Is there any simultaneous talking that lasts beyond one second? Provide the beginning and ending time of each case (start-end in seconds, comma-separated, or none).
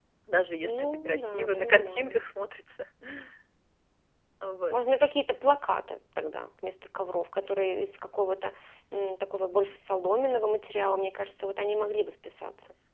0.6-2.3